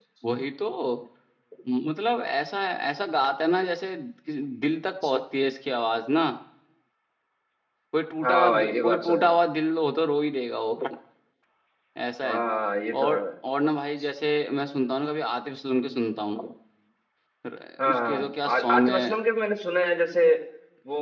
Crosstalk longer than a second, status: present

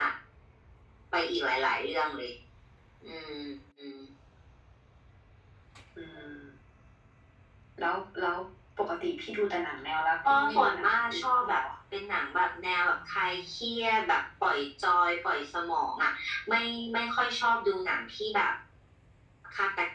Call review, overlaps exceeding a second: present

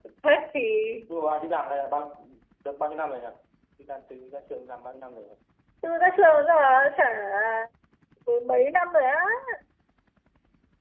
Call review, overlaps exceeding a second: none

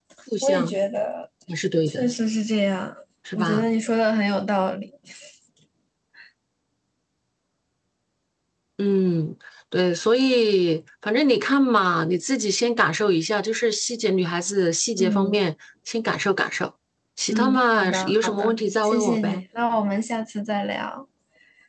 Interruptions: present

